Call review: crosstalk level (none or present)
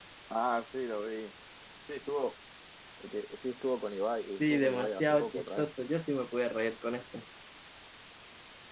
present